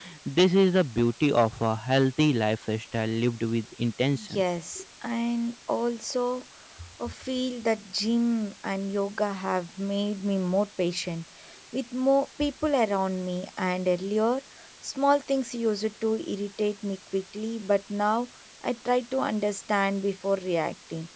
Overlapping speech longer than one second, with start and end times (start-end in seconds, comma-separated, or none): none